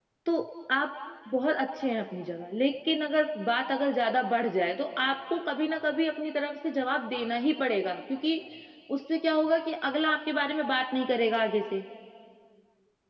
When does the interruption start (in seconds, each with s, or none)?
none